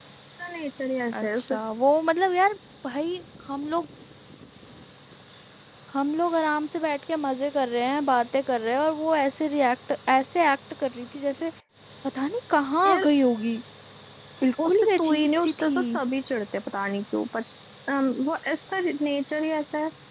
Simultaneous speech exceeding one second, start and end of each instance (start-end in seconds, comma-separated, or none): 14.7-16.0